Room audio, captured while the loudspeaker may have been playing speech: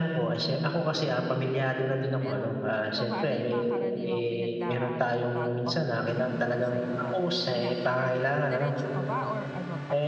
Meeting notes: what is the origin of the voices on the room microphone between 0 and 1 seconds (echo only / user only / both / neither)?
echo only